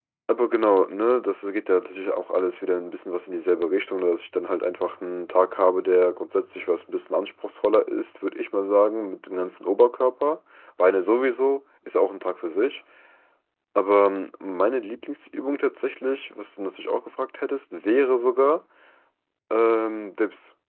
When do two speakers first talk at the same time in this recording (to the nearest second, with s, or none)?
none